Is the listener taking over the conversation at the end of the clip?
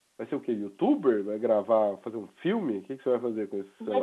Yes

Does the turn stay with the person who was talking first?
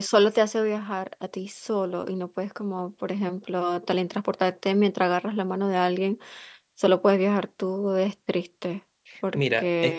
No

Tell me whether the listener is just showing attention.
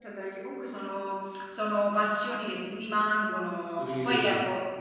Yes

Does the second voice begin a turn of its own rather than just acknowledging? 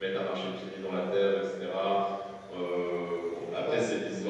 No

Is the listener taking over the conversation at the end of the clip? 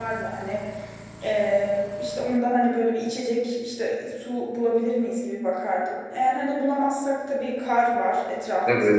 Yes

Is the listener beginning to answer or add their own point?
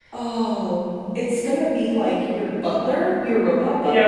Yes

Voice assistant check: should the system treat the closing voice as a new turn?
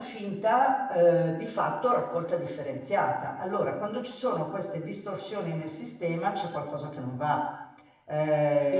Yes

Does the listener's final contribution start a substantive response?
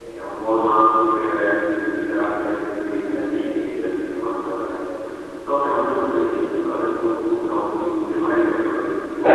Yes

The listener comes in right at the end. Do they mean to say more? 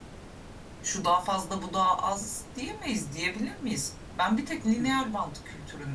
No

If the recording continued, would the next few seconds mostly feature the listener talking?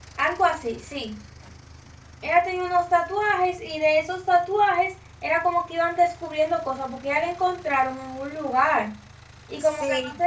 Yes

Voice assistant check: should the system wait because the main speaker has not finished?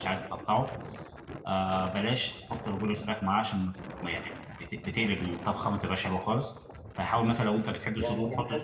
No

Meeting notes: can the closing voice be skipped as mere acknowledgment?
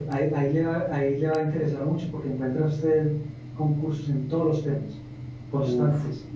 No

